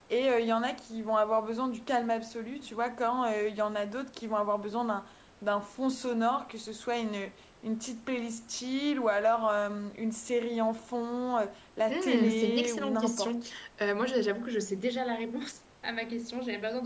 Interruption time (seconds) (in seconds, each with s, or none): 11.9 s